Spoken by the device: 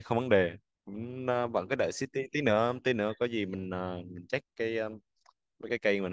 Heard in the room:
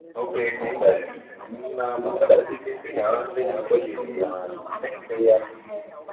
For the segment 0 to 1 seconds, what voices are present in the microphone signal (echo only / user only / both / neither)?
both